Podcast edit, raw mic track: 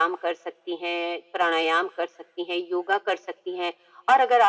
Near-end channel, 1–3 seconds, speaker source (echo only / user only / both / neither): echo only